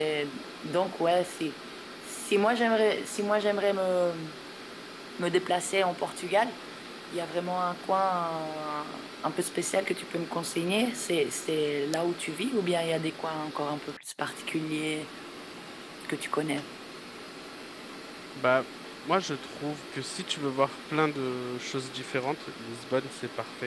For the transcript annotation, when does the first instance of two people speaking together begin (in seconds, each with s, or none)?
none